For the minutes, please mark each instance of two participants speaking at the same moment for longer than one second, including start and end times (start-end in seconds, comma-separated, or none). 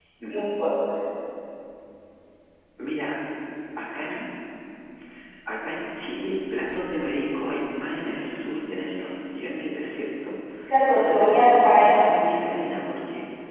10.9-12.2